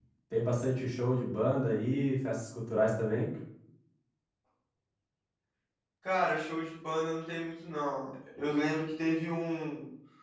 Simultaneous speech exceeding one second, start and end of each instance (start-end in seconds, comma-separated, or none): none